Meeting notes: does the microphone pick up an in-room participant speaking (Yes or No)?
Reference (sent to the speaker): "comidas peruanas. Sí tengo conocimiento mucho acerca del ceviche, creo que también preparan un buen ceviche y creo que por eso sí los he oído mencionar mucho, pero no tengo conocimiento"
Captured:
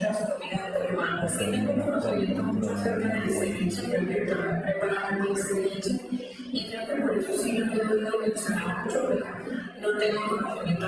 Yes